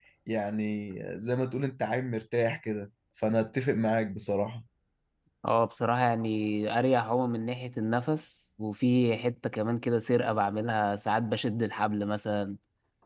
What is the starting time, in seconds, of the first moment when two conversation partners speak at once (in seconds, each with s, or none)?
none